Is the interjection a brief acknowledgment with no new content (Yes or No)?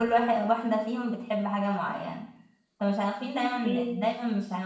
Yes